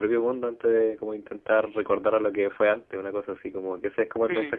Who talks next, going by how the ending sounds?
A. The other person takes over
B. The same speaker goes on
B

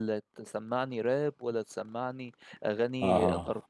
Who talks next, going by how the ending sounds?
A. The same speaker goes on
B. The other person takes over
A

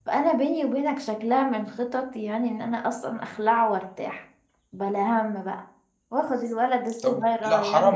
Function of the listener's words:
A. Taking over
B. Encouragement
A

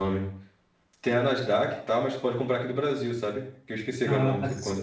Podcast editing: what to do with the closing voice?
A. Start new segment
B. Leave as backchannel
A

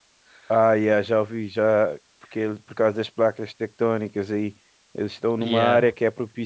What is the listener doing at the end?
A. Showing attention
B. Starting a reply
A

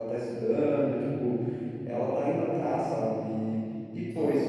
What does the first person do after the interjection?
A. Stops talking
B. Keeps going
B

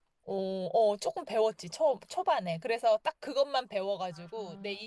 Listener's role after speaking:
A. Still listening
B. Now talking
A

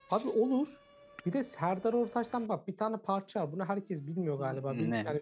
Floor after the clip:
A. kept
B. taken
A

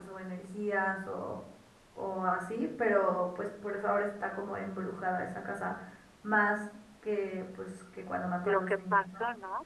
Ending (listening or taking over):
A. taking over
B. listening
A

